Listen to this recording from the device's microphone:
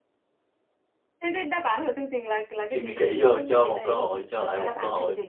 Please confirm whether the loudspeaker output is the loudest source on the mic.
No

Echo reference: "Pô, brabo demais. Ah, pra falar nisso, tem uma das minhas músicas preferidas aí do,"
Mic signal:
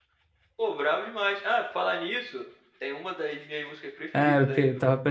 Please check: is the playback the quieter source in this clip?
Yes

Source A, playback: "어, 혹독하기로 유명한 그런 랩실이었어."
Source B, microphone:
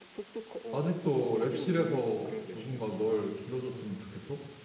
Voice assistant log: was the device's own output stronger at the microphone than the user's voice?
No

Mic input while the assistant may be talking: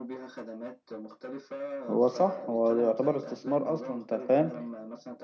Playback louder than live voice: No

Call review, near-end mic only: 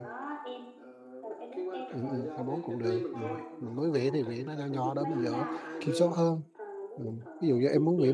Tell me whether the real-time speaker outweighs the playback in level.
Yes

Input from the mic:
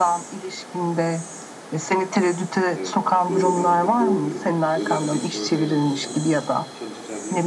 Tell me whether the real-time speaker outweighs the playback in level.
No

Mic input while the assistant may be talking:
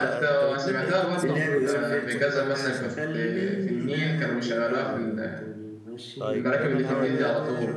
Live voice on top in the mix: No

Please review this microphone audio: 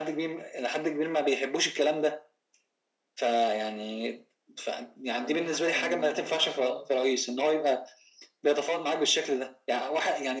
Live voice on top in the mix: No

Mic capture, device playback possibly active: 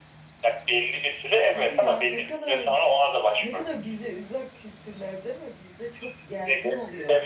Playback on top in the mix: Yes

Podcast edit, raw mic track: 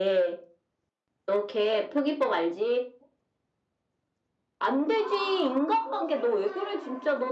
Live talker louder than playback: No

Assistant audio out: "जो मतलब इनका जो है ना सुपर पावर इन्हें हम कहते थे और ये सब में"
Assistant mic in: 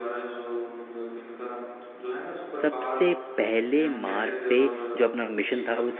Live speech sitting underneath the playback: No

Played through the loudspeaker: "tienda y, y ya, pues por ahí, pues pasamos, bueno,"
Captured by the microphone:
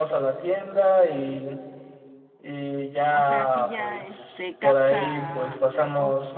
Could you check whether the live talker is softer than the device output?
Yes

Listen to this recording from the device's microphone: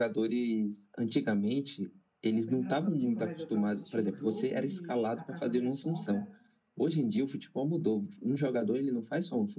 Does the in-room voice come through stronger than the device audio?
No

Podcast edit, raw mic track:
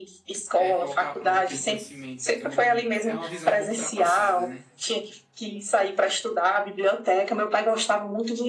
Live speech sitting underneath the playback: Yes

